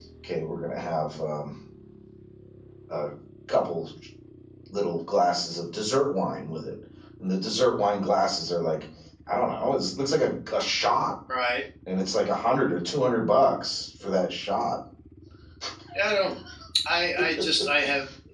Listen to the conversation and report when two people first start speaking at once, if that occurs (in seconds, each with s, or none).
none